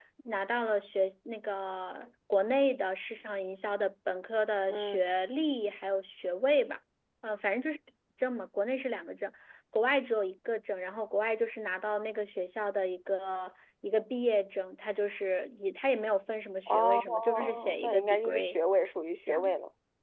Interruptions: present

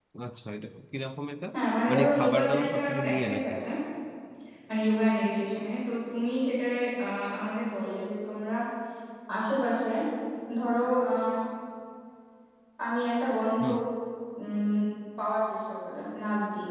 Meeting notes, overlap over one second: present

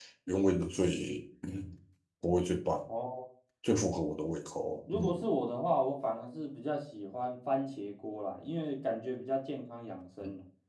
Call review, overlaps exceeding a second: none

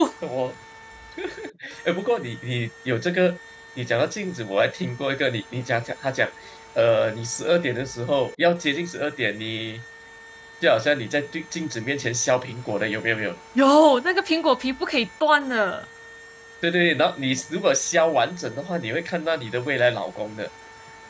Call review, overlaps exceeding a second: none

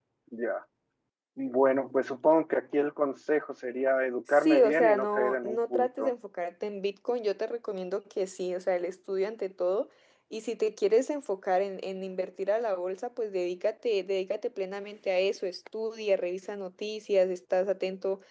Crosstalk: present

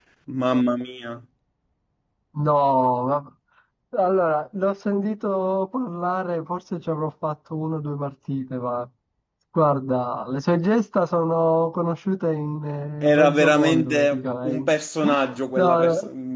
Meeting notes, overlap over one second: present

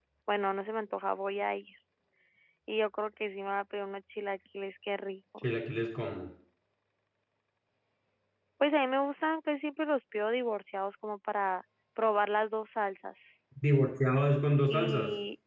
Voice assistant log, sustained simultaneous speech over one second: none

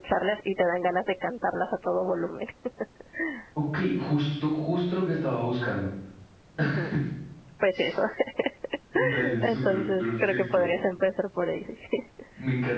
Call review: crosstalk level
present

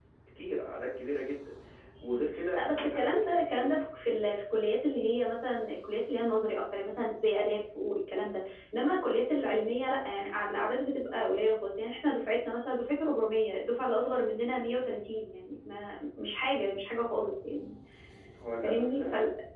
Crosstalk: present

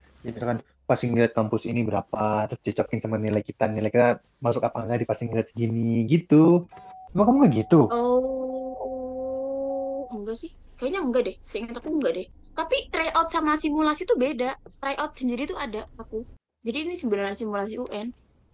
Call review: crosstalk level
none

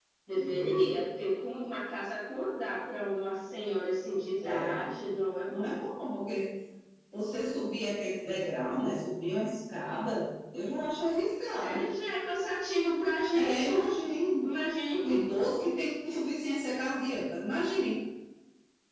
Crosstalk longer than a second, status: none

